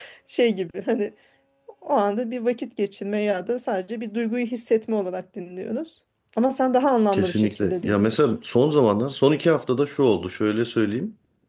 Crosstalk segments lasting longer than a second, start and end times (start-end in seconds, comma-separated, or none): 7.1-8.4